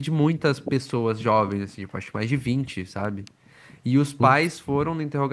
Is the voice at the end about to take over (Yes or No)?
No